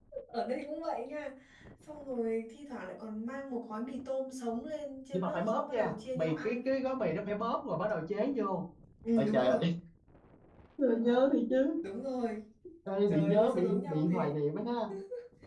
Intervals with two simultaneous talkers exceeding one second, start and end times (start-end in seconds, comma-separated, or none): 5.1-6.7, 13.1-14.3